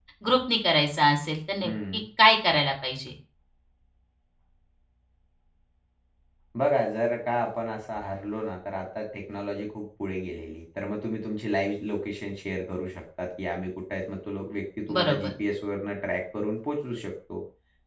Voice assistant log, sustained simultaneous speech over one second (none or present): none